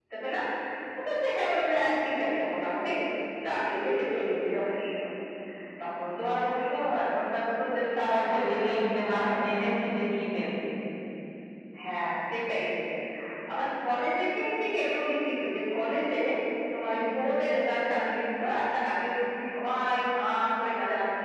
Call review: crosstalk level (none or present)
present